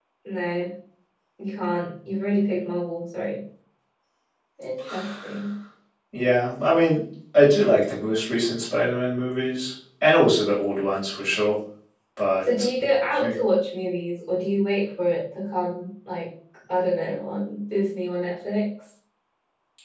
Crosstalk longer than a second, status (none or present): none